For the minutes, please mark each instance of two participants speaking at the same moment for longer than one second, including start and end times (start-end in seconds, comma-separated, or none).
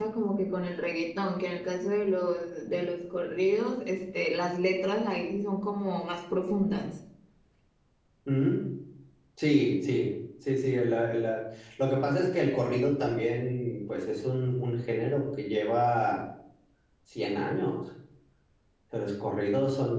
none